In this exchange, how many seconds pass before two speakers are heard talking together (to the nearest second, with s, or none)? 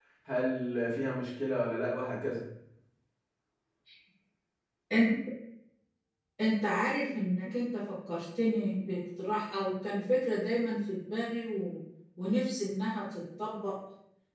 none